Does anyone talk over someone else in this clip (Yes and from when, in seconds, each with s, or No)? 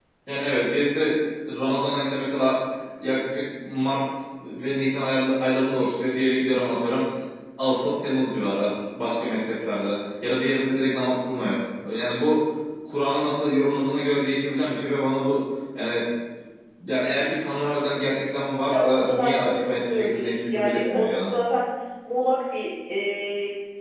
Yes, from 18.7 s